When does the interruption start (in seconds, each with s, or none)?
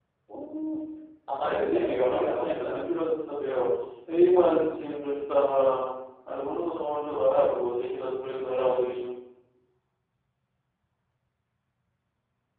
1.4 s